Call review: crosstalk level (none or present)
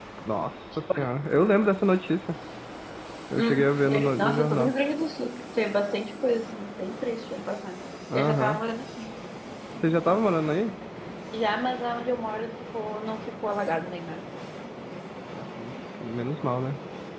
present